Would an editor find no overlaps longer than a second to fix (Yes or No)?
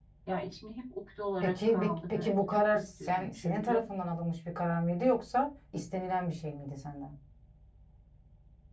No